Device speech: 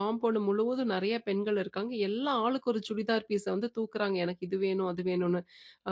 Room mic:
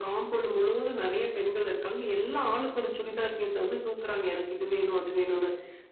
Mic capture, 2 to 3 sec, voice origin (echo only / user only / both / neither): echo only